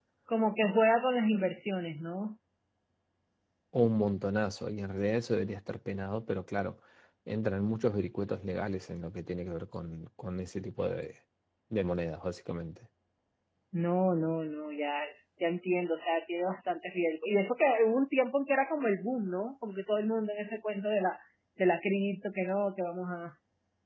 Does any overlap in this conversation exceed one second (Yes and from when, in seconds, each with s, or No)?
No